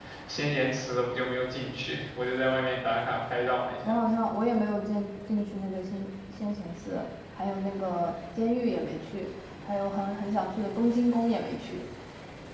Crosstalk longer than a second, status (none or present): none